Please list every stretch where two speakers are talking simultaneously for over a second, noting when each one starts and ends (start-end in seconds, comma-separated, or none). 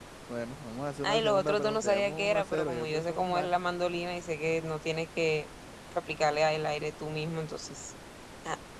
1.0-3.5